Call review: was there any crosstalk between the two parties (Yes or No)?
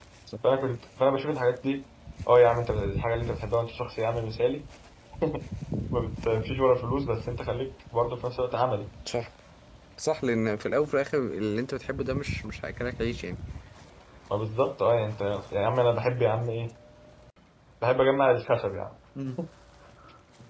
No